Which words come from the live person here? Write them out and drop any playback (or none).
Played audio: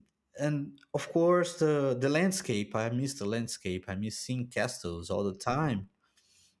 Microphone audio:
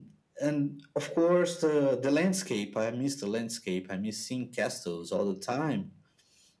none